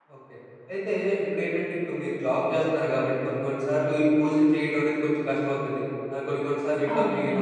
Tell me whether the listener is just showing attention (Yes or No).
Yes